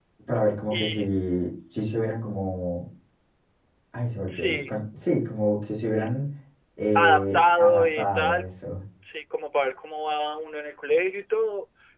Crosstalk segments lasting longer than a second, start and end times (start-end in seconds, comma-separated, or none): 7.0-8.4